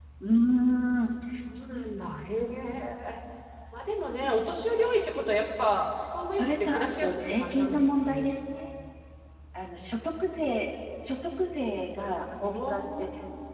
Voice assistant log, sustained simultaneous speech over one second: present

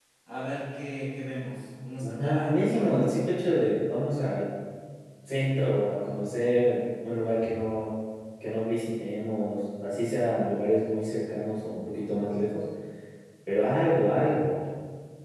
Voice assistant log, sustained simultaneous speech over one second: present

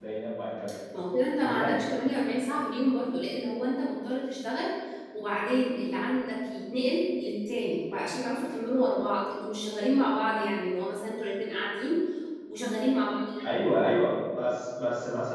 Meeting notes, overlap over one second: none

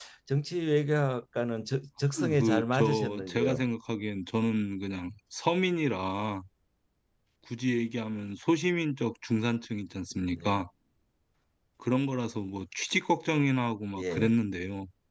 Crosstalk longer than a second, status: present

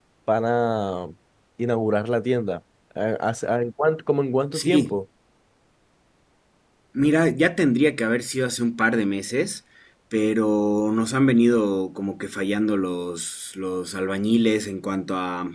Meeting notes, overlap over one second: none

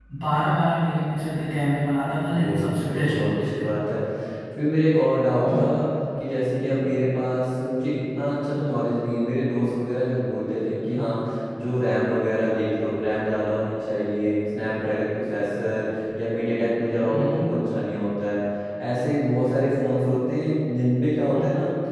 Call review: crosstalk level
present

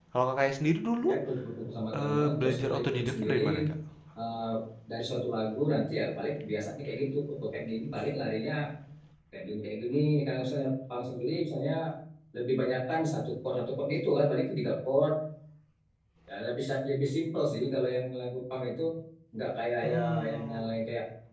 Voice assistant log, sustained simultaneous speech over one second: present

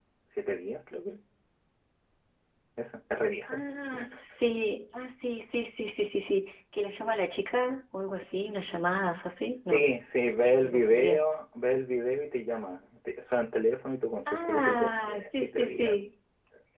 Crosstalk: present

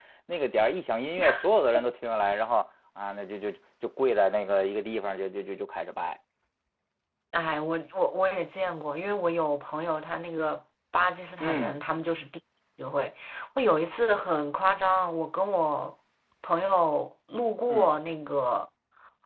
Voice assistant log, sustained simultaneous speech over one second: none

